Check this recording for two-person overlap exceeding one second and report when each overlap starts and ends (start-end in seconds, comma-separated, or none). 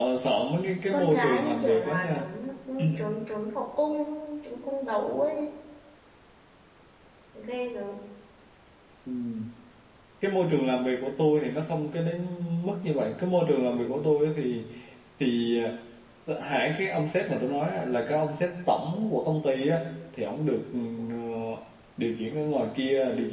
0.9-2.2